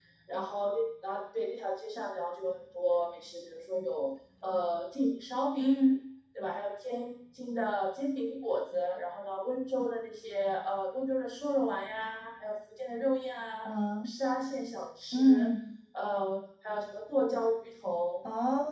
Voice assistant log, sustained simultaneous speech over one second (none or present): none